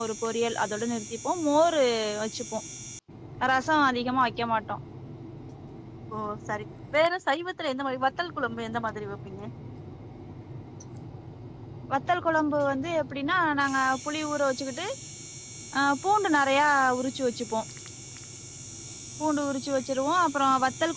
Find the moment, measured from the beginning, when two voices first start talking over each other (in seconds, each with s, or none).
none